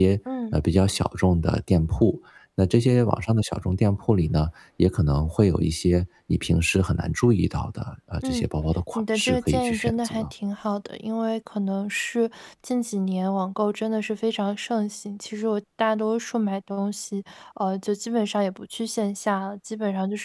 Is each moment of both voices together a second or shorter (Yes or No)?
No